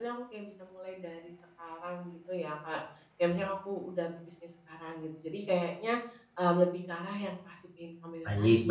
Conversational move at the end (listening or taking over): taking over